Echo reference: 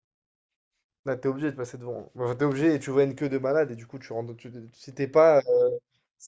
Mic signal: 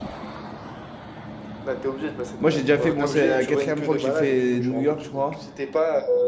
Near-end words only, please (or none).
moi, j'ai déjà fait. bon c'est la quatrième fois que j'ai fait New York, je crois.